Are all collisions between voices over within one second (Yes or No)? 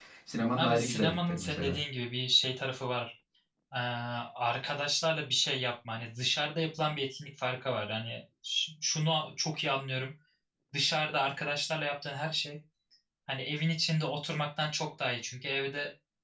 No